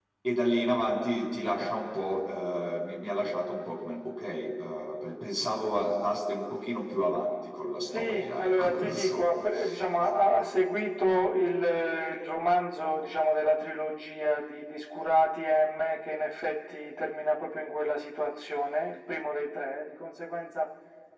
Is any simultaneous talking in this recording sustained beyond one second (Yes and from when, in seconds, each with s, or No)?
Yes, from 7.9 s